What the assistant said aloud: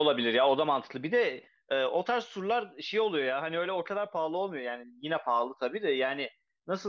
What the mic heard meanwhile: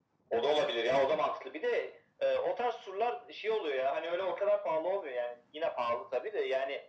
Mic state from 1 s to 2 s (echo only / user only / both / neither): echo only